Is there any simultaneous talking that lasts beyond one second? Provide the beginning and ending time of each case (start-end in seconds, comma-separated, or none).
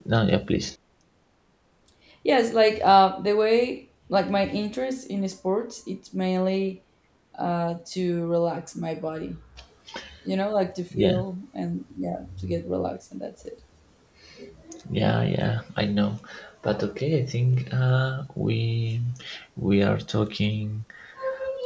none